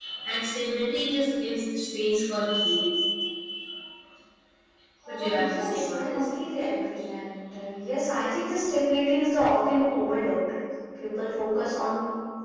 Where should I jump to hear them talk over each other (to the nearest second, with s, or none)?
5 s